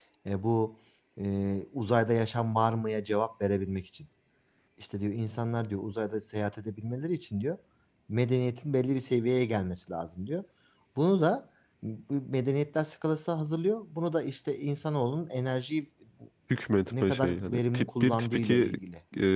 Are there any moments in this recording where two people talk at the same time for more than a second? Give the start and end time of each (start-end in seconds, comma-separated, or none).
16.9-18.7